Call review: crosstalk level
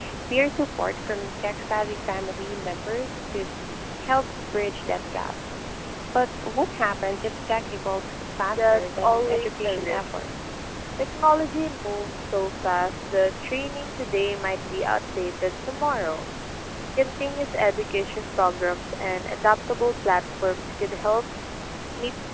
present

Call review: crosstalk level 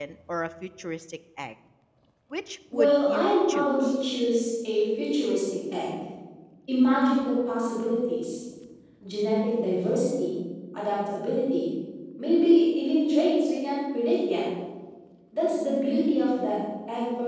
present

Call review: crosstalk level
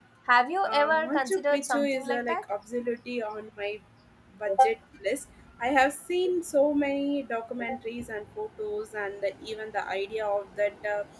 present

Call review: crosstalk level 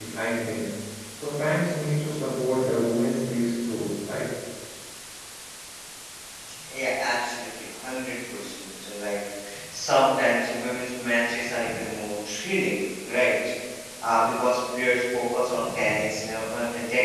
none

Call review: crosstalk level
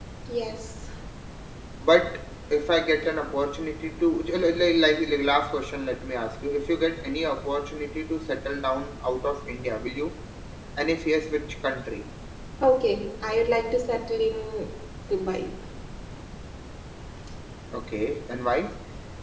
none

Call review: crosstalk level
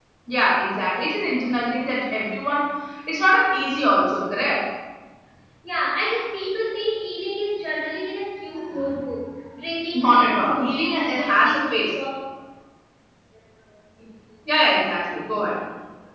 present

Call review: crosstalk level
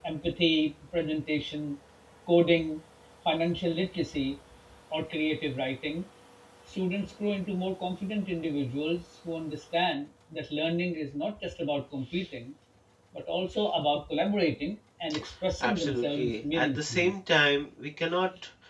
present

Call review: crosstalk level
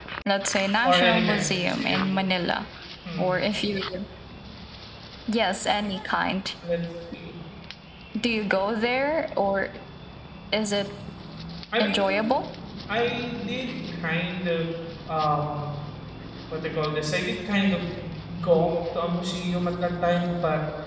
present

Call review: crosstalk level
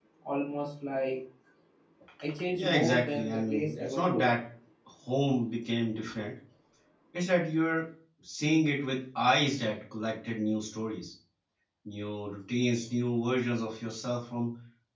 present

